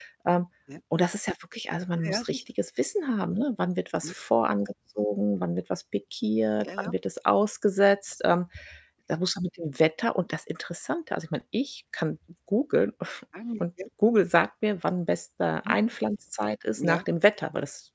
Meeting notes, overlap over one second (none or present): none